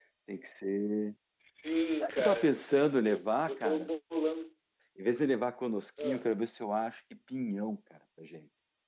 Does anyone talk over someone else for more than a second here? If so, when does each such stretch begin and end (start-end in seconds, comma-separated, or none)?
2.0-3.9